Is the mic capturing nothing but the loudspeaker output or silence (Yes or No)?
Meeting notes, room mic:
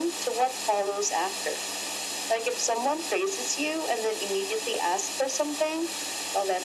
Yes